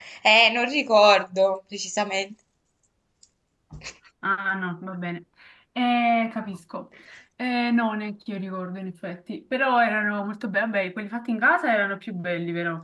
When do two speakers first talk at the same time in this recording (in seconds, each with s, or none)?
none